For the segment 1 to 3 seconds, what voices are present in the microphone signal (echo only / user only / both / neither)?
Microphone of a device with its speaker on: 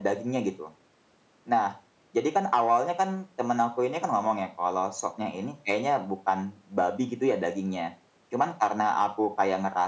echo only